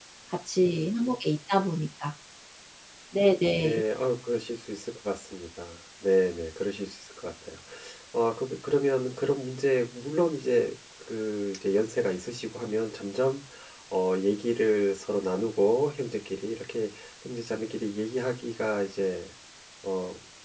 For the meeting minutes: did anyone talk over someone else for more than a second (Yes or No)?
No